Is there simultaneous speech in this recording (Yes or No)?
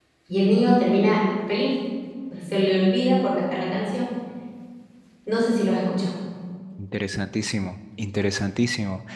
No